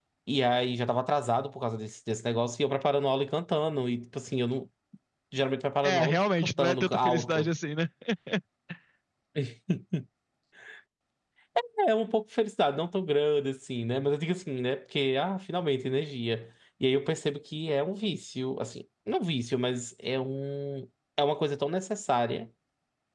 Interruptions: present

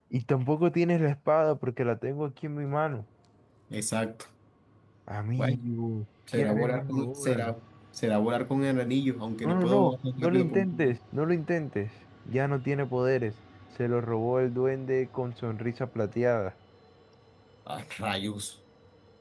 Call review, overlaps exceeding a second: present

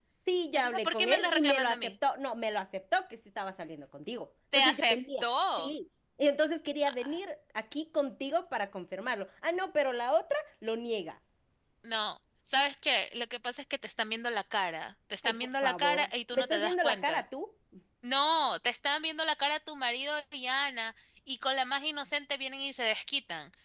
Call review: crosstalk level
present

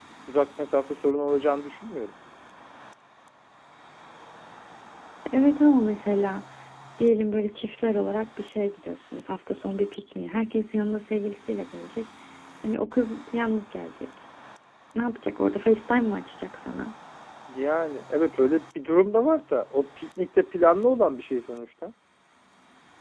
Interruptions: none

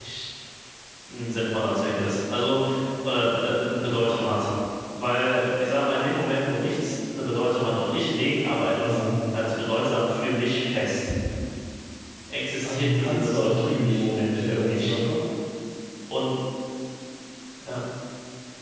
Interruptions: present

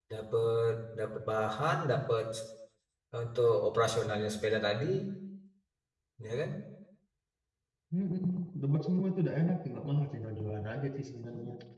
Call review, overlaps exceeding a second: none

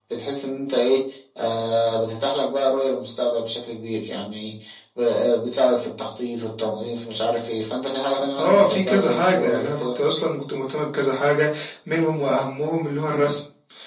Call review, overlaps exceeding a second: present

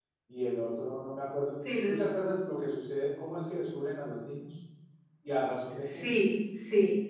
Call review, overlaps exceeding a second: none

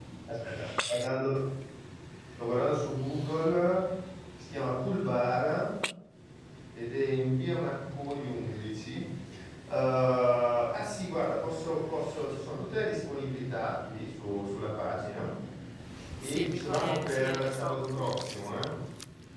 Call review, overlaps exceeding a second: present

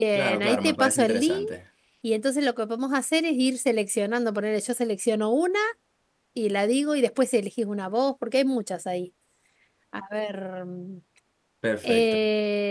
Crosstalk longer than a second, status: present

